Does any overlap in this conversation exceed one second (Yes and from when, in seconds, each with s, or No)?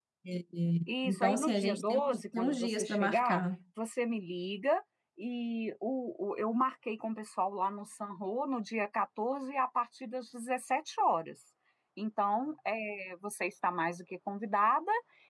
Yes, from 0.9 s